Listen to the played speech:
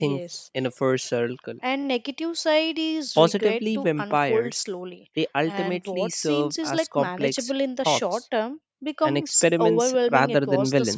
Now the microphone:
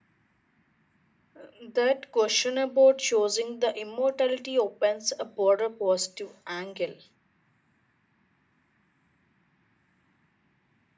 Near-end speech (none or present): present